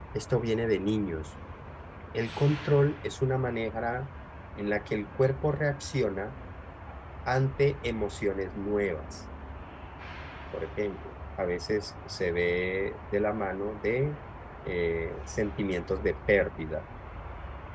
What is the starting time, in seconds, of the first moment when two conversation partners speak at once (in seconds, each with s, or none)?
none